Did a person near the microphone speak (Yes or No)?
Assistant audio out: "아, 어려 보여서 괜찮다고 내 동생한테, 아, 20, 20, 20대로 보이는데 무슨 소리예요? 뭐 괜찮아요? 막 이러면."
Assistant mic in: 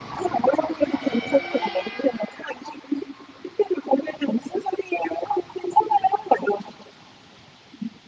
No